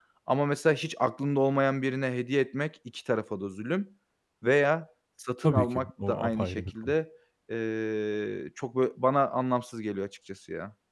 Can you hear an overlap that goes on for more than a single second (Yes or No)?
Yes